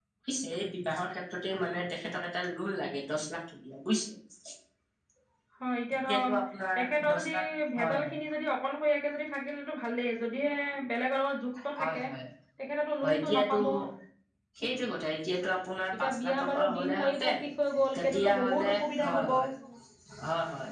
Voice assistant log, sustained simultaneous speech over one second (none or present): present